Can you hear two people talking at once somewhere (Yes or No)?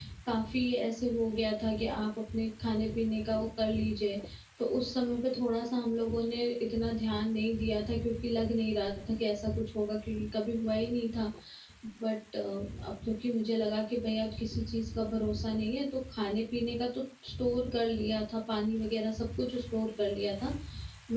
No